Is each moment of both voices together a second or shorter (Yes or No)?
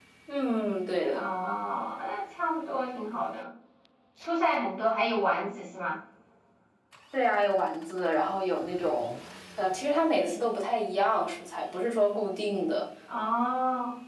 Yes